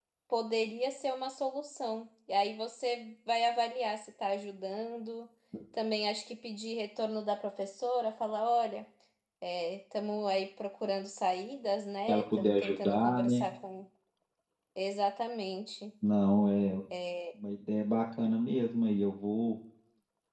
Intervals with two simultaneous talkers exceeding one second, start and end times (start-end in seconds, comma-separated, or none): 12.1-13.5